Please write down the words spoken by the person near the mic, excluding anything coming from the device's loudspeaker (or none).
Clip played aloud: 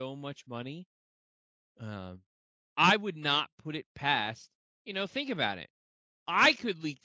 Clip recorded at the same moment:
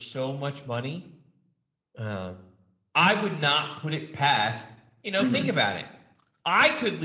Mhm.